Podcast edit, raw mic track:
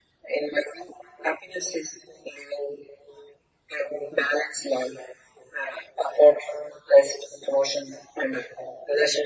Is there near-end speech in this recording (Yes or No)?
No